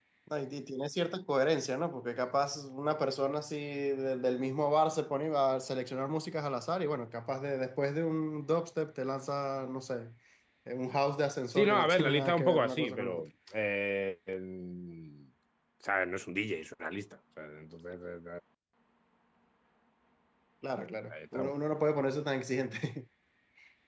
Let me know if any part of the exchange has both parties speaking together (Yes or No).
Yes